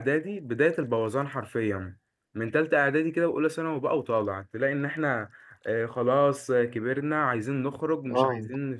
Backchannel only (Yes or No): Yes